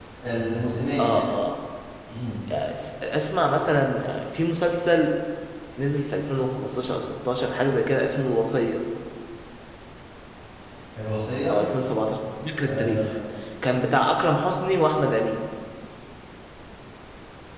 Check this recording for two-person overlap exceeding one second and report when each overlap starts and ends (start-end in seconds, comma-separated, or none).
none